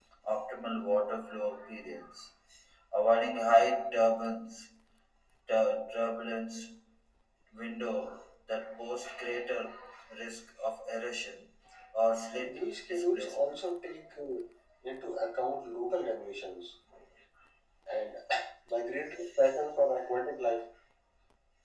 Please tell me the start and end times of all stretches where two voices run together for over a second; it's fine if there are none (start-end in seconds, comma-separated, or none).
12.3-13.6